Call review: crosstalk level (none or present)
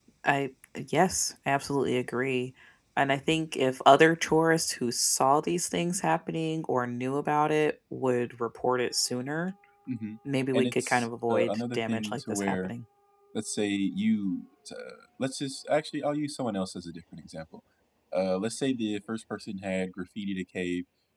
present